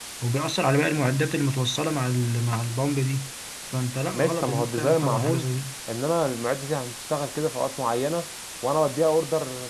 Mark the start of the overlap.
4.1 s

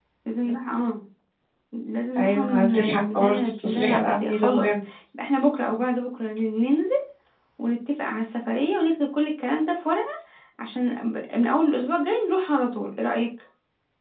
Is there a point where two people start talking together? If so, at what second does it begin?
2.2 s

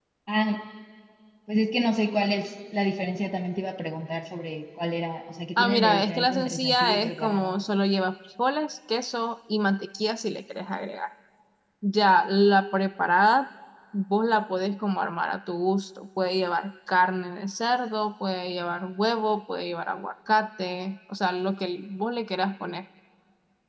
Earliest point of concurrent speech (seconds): 5.6 s

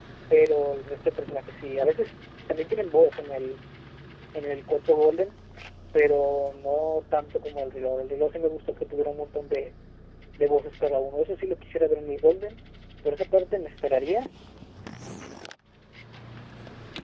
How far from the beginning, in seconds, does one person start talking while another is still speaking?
none

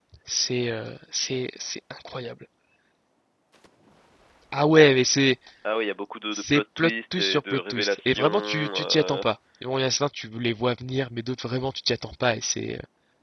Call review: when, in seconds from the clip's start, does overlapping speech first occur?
6.3 s

